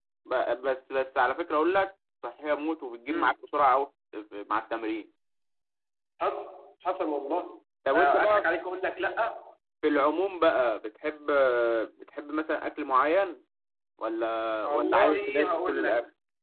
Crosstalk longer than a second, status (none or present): present